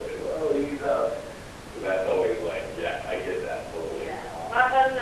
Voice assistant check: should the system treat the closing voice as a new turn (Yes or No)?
Yes